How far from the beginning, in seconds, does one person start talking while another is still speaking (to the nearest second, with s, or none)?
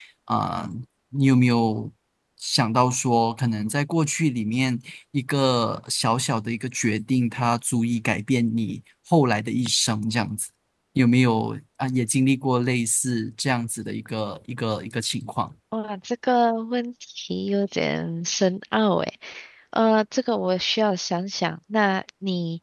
none